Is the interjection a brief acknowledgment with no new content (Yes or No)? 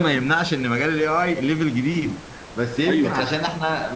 Yes